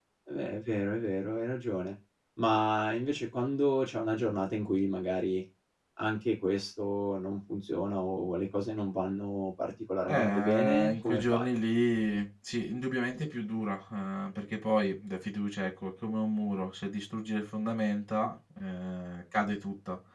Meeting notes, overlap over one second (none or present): present